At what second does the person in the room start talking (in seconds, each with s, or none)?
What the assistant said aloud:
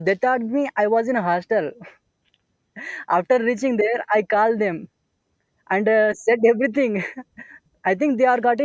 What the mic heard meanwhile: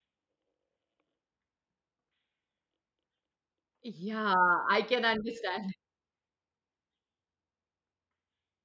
3.8 s